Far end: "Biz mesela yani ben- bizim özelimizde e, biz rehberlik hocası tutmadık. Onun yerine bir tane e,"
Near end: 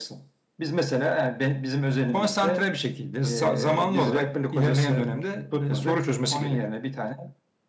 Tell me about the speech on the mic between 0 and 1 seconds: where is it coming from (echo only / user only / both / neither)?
echo only